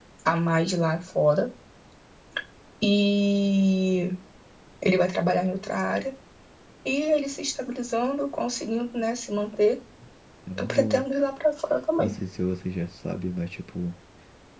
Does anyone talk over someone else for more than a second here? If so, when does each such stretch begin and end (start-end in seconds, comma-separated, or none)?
none